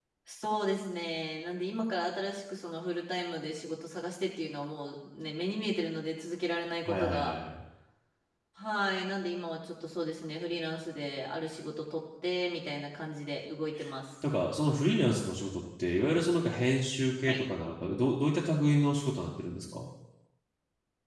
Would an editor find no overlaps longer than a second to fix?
Yes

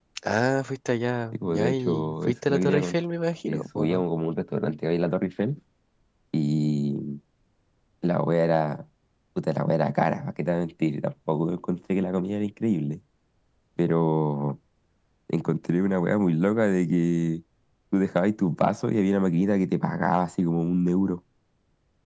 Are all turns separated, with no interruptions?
No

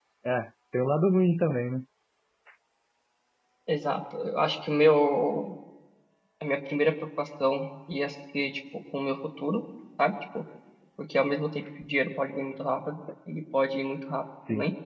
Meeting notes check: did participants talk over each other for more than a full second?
No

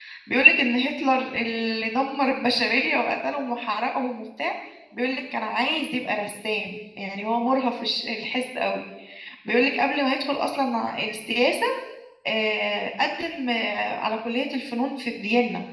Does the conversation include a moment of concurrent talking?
No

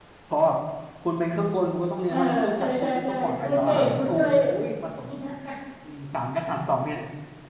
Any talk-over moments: Yes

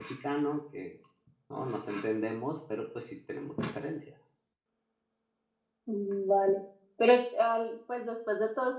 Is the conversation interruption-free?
Yes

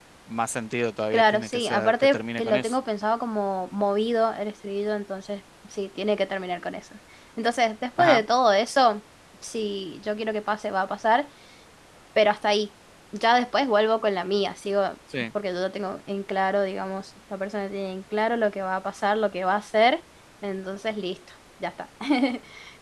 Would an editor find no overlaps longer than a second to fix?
No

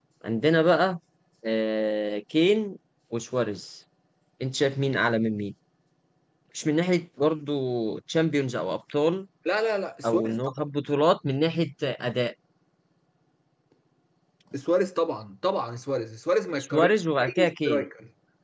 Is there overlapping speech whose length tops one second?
Yes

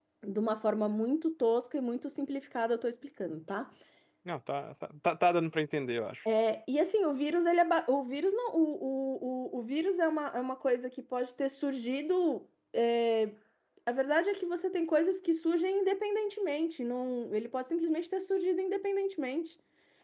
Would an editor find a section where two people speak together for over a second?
No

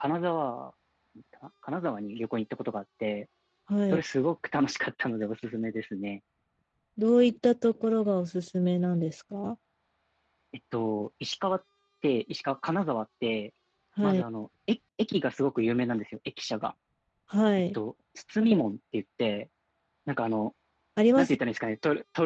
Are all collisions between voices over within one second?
Yes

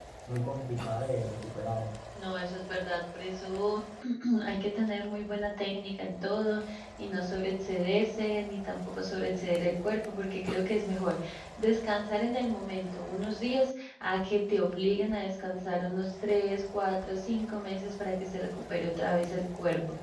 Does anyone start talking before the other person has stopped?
No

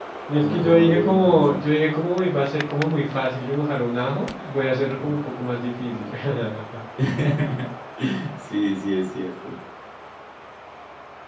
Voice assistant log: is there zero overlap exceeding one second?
No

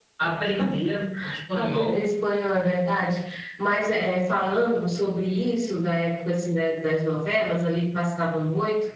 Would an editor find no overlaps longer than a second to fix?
Yes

